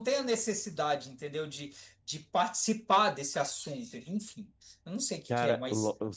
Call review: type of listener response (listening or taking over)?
taking over